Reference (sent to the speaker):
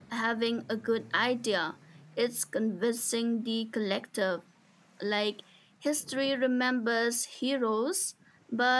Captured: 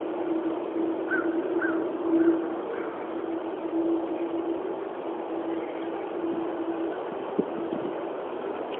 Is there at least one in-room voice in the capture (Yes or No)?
No